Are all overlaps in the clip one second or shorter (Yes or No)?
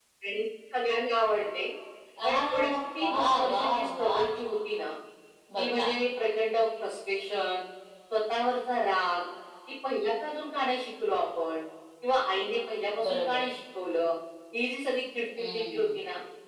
No